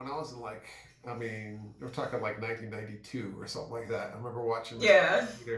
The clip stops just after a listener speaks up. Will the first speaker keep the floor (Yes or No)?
Yes